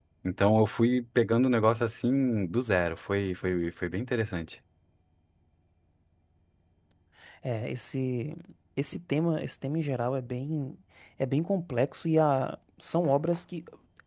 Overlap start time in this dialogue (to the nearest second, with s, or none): none